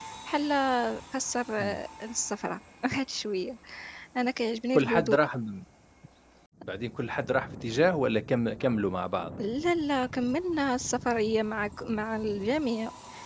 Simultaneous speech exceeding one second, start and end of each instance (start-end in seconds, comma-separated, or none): none